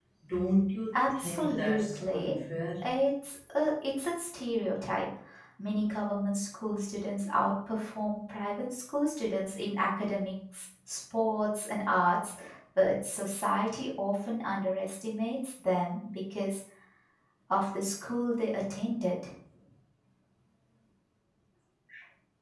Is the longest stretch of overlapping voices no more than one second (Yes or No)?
No